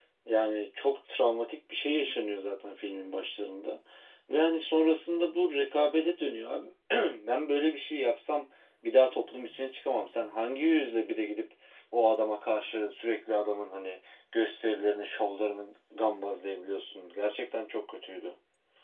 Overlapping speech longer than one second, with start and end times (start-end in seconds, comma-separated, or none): none